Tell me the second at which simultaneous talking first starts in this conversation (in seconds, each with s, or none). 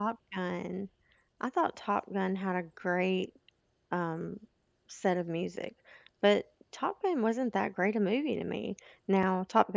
none